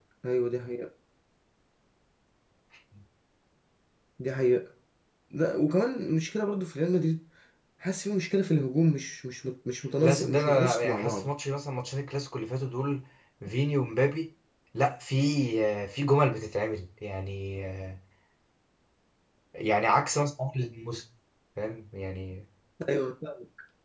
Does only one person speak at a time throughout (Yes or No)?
No